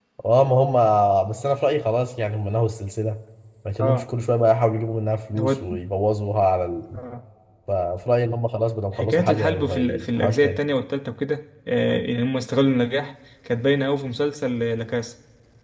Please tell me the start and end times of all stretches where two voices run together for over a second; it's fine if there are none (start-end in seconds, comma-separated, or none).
8.9-10.6